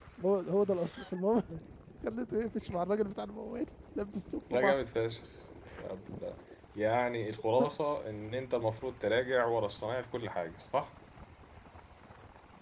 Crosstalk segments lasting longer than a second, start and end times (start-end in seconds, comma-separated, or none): none